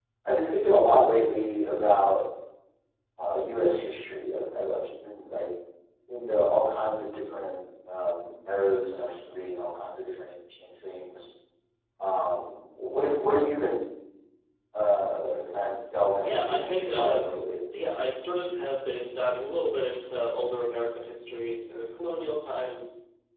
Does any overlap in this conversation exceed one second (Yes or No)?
Yes